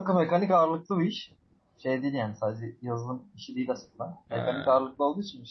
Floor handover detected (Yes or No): No